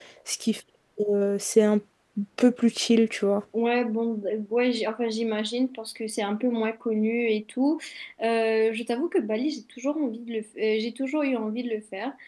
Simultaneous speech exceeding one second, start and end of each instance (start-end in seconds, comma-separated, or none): none